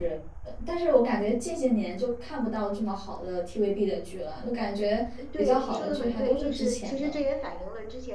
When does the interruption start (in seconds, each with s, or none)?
5.2 s